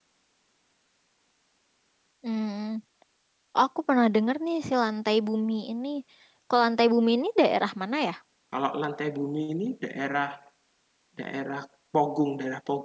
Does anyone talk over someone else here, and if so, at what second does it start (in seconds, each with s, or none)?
none